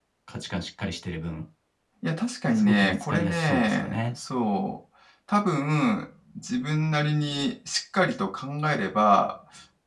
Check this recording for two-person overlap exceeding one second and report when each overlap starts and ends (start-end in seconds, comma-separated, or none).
2.5-4.1